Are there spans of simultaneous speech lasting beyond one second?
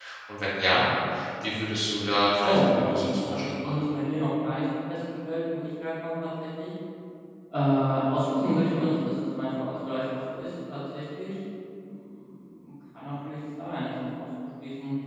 Yes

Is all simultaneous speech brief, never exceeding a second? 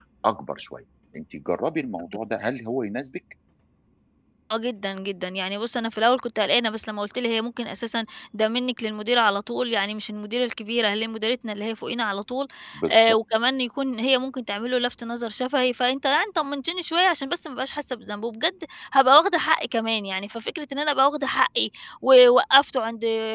Yes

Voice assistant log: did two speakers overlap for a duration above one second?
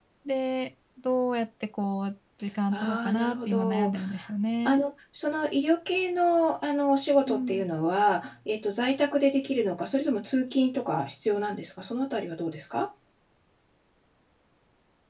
Yes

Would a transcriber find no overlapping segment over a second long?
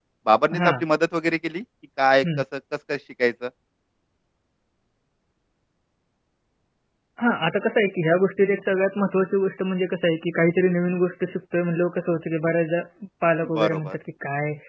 Yes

